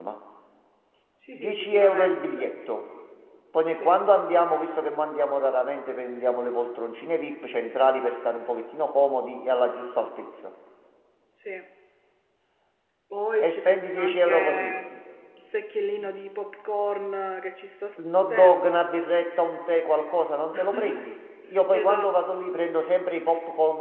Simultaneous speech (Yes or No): Yes